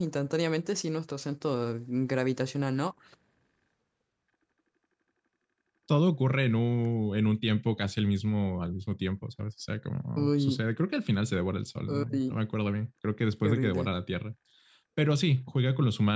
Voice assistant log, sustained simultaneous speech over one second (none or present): none